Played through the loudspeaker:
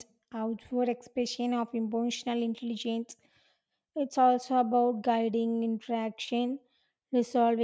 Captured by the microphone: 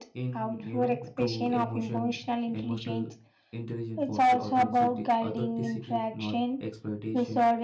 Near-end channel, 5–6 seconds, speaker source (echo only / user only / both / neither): both